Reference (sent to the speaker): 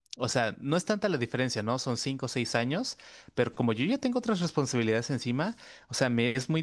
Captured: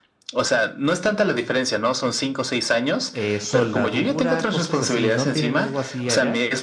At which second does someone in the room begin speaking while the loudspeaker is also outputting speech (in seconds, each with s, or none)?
3.1 s